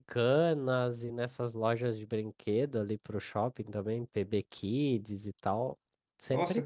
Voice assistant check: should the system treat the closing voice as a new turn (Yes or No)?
Yes